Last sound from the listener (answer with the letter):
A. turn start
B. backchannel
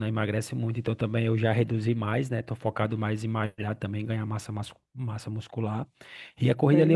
B